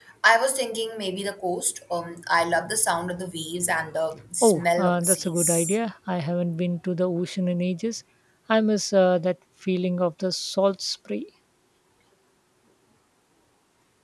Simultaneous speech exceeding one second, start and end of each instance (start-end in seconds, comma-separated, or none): 4.4-5.8